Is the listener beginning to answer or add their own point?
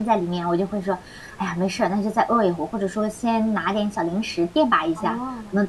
No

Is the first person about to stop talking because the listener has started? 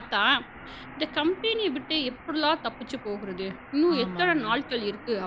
No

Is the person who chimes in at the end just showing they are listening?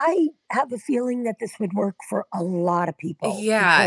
No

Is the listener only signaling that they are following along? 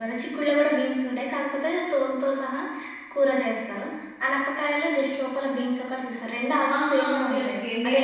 No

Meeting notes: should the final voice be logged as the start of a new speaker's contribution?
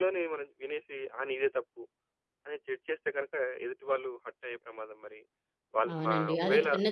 Yes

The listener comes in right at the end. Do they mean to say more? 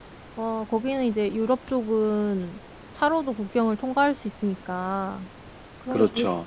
No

